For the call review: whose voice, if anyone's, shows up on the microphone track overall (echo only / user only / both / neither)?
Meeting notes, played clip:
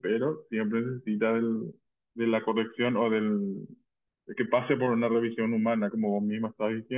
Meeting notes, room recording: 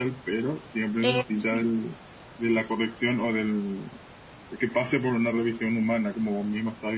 both